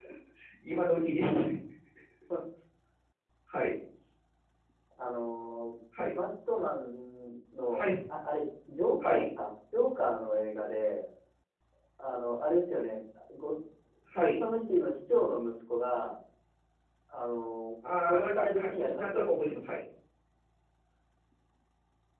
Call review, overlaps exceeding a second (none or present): present